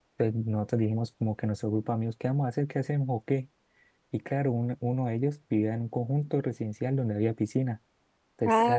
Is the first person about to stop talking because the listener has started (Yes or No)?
No